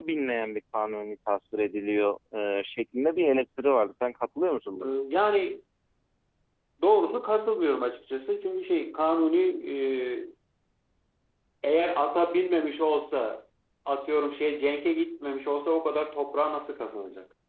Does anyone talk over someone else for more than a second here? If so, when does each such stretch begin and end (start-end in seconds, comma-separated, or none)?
none